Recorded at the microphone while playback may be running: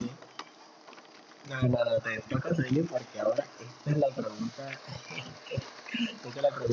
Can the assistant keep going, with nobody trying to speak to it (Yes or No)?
Yes